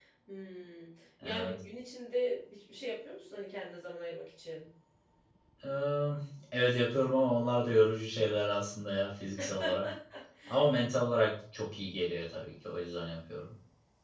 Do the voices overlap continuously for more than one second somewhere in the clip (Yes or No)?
No